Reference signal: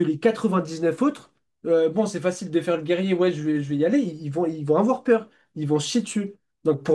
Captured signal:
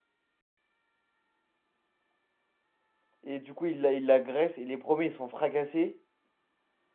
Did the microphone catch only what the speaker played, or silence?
No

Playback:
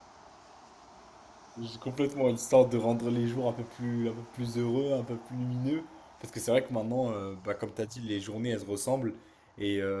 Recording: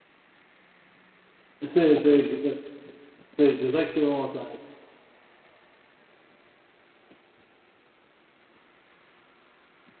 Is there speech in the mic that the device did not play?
Yes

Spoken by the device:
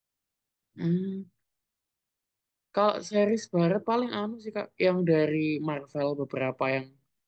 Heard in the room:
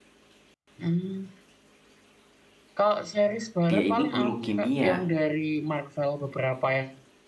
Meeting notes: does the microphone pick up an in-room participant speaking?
Yes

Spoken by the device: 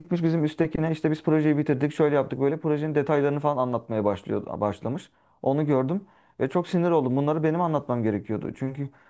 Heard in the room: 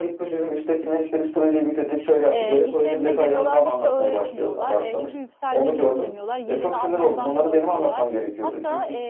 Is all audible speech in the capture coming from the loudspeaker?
No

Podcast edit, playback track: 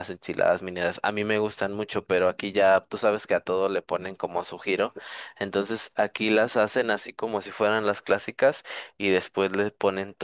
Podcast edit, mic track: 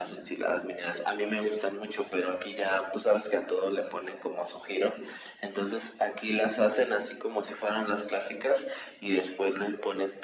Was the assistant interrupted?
No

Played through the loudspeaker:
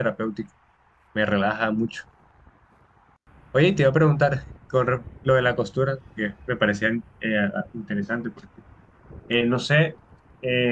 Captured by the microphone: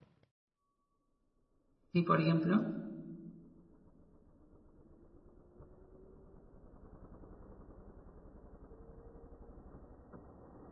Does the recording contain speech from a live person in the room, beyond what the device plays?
Yes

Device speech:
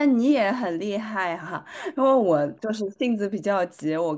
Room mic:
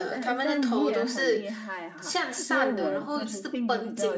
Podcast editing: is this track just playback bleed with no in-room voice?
No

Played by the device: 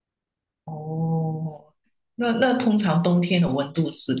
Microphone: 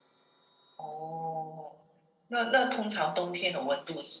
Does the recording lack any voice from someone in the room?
Yes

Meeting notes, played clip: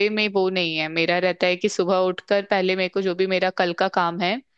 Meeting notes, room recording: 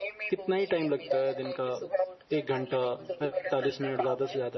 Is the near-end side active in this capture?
Yes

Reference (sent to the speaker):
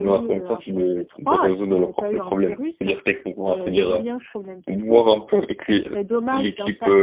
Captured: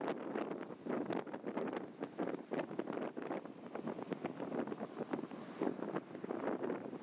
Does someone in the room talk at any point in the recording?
No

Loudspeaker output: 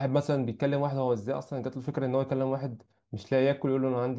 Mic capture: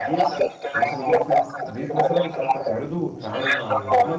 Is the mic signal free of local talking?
No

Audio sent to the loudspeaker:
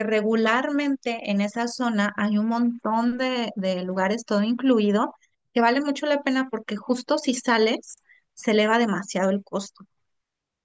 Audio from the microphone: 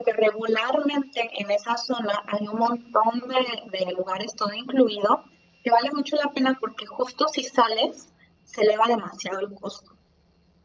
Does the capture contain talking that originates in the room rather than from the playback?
No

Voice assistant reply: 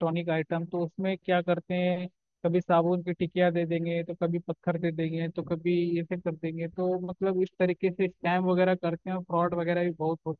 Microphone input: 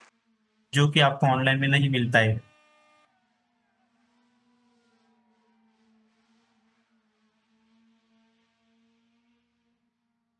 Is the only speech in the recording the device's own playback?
No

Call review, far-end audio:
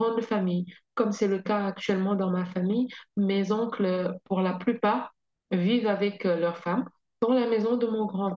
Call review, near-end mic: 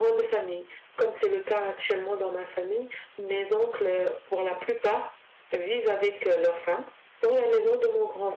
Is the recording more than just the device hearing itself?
No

